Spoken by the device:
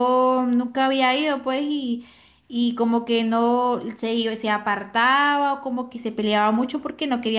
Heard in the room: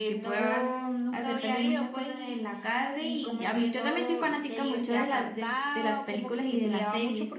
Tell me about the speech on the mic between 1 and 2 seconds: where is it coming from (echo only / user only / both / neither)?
both